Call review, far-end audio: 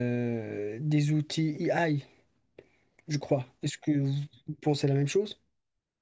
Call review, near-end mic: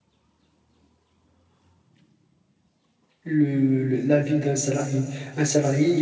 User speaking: Yes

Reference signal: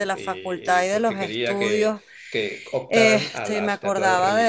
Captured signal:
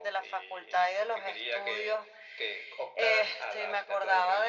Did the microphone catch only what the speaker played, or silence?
Yes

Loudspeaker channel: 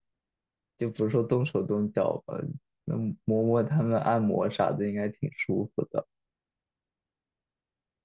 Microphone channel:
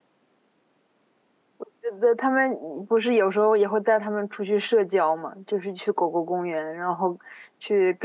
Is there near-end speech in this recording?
Yes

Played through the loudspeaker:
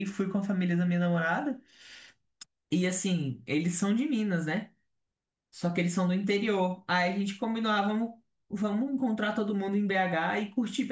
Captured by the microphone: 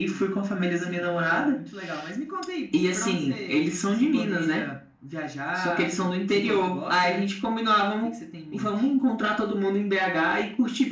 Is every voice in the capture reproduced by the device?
No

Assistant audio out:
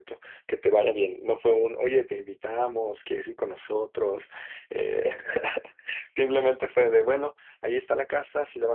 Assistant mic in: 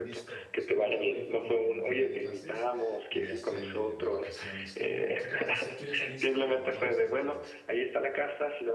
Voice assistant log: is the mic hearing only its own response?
No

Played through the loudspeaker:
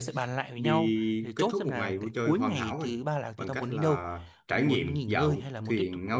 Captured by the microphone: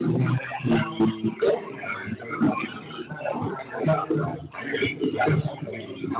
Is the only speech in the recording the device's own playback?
Yes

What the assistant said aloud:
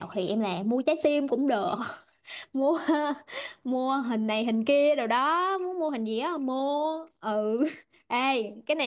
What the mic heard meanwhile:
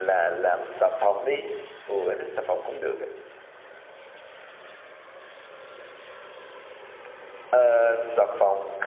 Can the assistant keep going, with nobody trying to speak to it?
No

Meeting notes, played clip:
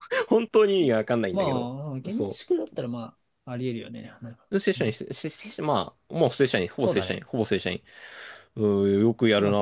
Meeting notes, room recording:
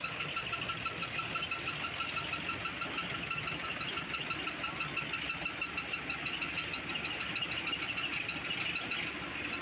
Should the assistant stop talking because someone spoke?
No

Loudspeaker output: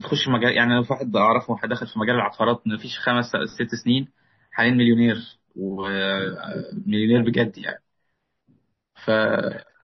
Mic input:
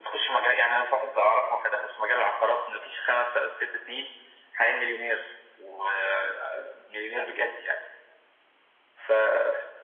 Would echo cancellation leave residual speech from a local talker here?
No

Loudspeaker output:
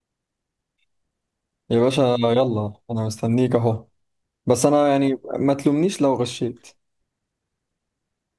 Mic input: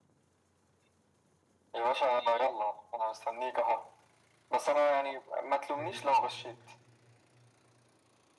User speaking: Yes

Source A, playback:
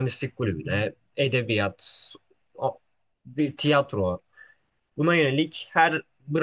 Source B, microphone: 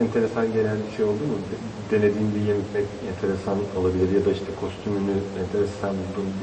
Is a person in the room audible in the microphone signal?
Yes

